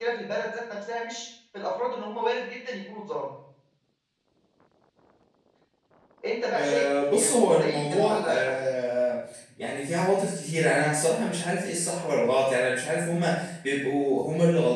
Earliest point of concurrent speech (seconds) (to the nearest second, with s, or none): 7 s